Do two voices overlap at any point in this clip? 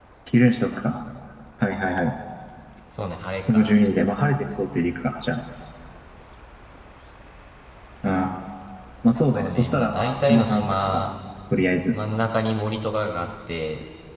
Yes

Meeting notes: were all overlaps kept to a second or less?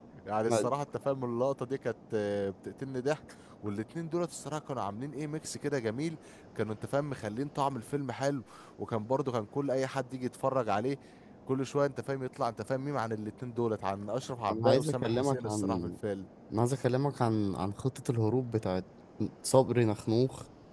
No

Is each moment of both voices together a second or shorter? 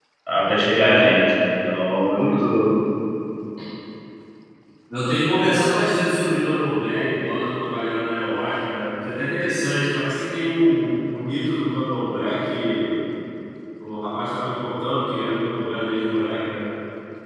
Yes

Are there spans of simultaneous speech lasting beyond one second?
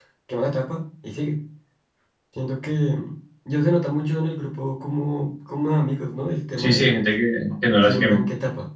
No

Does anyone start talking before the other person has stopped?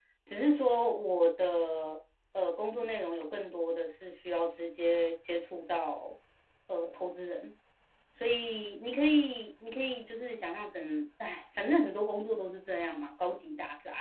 No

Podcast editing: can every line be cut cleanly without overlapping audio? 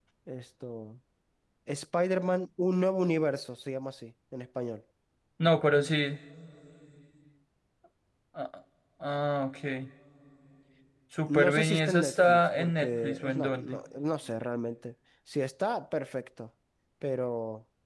No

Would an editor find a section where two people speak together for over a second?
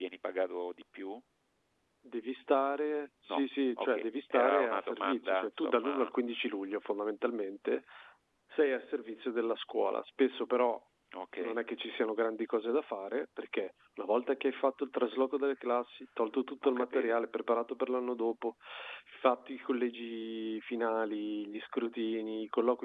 Yes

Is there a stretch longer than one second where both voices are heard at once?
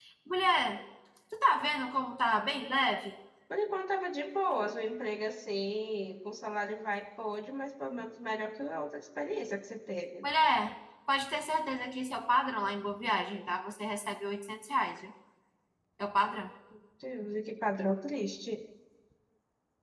No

